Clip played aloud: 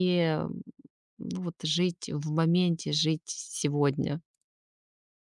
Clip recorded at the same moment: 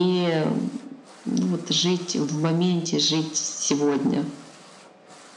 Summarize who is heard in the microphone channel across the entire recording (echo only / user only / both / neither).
echo only